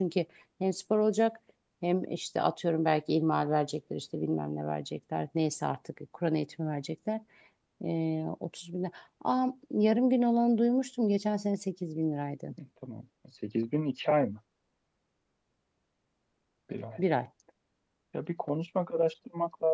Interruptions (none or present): none